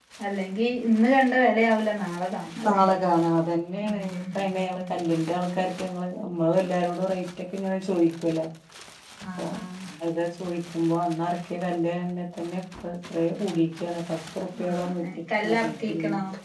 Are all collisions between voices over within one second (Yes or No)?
No